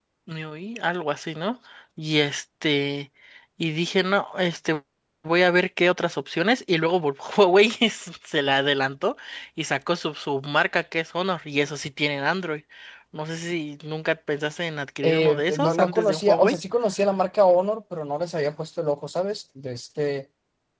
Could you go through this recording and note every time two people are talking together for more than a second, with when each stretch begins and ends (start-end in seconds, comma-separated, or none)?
15.1-16.6